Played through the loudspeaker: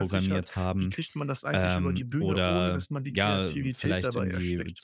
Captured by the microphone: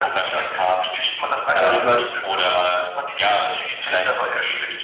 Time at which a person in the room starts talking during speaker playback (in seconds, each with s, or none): 1.5 s